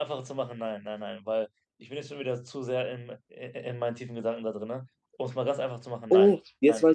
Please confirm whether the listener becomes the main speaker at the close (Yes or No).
Yes